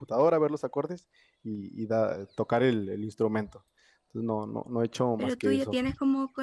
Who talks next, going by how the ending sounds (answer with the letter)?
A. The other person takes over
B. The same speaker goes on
A